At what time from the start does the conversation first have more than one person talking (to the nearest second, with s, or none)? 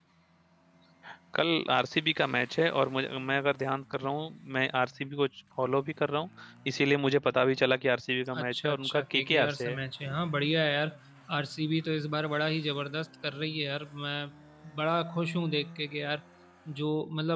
8 s